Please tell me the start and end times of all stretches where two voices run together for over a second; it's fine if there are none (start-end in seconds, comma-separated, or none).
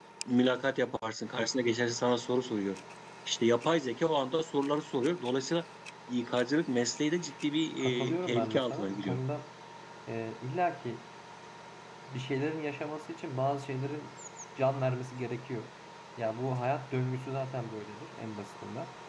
7.8-9.2